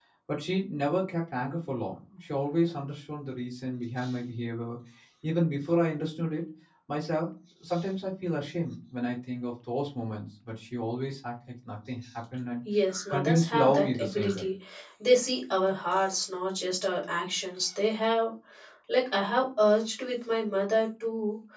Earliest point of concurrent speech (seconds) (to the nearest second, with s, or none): 13 s